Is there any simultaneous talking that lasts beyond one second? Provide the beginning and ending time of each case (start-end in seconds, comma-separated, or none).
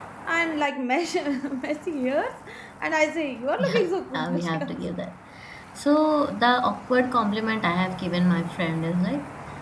3.6-4.9